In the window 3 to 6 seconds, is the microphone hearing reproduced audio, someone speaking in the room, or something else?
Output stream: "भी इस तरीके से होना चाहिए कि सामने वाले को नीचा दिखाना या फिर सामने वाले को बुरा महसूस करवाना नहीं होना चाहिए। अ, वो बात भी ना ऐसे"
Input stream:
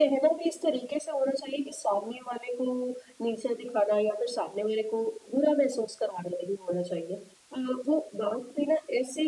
echo only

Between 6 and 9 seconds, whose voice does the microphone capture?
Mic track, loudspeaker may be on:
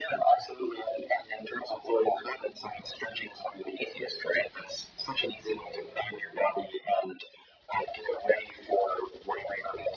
echo only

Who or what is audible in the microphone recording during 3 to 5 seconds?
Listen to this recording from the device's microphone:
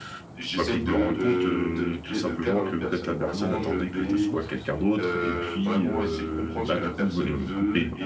both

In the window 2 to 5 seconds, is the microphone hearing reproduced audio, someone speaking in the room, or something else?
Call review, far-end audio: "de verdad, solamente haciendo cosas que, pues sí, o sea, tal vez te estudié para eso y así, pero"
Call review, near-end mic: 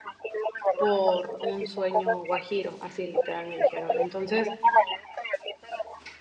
both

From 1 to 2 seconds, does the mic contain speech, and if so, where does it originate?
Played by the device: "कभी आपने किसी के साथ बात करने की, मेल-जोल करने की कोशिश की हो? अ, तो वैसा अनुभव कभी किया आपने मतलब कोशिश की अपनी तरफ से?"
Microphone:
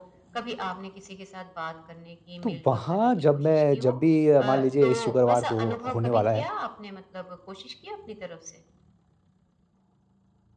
echo only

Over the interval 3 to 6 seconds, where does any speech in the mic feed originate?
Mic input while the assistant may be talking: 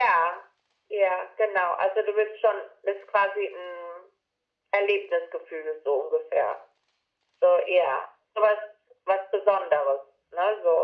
echo only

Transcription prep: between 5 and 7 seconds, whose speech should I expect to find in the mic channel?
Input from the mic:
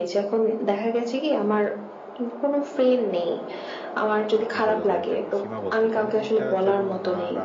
both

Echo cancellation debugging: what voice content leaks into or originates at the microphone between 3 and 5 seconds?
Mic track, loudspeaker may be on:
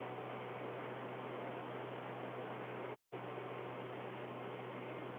neither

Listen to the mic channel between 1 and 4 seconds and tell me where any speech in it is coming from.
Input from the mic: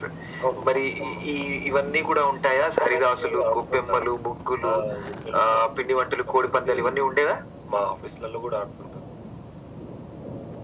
echo only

